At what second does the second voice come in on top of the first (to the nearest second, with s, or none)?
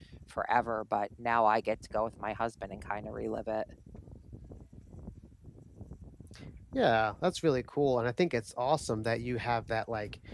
none